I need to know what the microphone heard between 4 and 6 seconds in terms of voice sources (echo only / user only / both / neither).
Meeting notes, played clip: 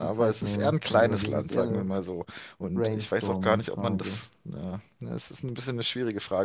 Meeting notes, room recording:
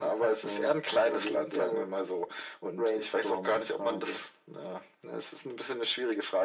echo only